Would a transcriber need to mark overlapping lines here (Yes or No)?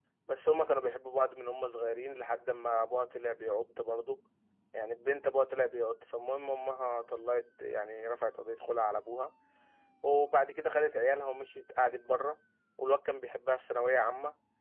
No